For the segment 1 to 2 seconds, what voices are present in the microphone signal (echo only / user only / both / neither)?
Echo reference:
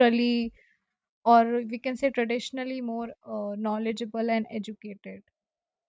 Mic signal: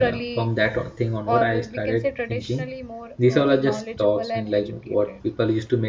both